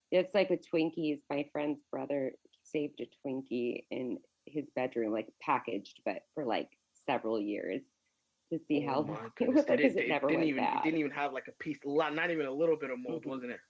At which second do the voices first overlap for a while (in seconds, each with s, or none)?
8.7 s